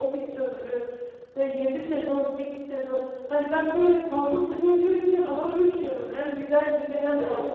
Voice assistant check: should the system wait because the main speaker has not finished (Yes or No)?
No